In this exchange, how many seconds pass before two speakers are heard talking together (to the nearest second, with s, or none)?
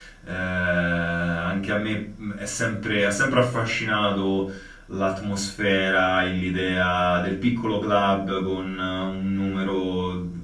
none